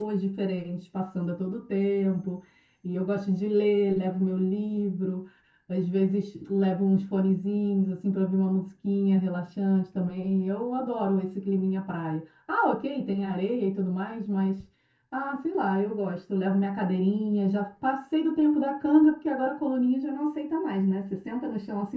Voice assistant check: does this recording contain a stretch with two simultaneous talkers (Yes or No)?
No